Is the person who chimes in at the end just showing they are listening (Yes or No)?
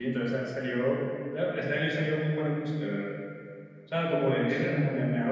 Yes